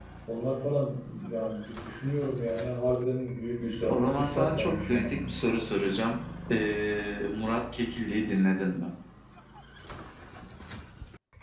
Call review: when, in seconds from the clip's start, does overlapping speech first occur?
3.9 s

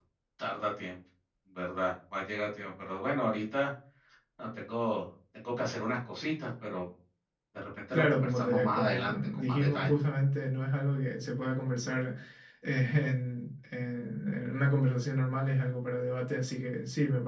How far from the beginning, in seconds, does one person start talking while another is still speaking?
7.9 s

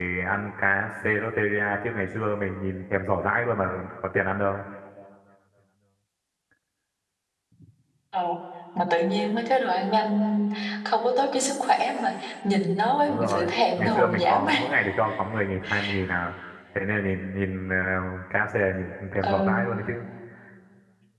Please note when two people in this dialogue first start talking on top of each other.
13.1 s

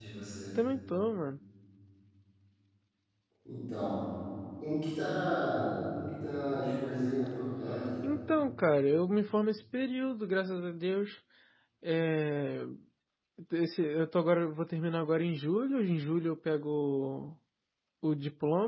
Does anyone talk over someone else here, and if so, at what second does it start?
none

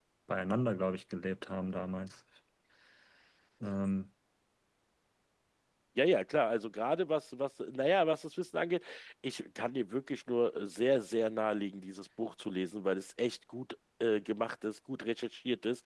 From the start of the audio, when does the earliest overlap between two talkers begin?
none

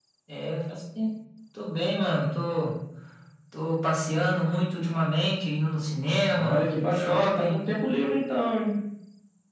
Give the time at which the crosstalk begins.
6.3 s

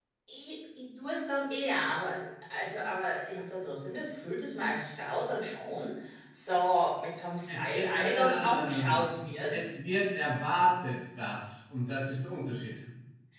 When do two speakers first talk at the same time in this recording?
7.5 s

